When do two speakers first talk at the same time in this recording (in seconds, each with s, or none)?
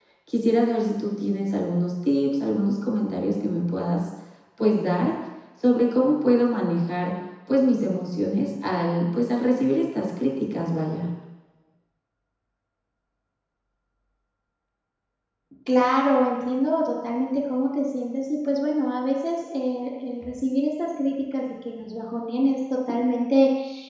none